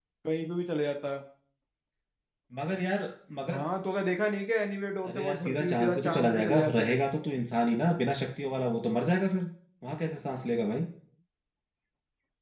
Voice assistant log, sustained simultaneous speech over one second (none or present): present